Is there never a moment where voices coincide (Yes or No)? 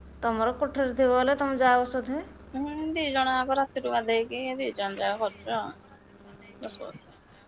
Yes